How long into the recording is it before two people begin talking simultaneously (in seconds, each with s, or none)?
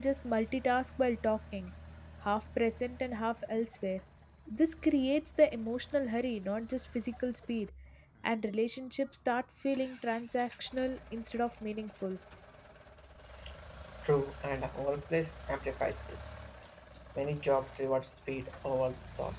none